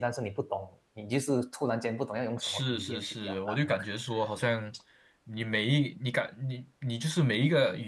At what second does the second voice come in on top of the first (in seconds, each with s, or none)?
2.4 s